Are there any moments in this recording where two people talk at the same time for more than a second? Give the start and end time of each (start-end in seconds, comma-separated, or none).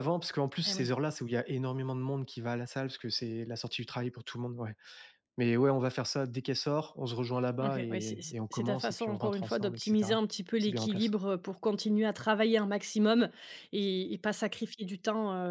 7.6-10.2